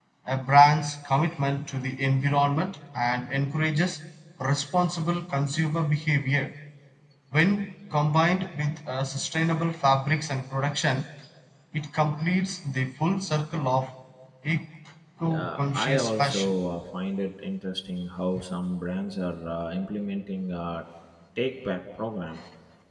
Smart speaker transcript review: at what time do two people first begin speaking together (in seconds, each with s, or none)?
15.2 s